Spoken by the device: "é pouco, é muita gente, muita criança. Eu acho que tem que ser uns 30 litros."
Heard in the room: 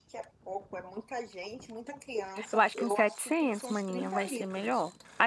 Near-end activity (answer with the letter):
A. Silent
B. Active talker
B